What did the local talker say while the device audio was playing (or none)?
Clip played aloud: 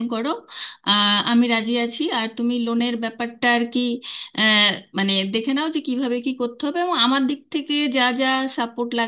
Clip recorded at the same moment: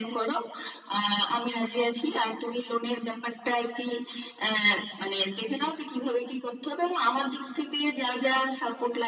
none